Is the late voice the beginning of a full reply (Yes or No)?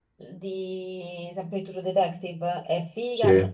No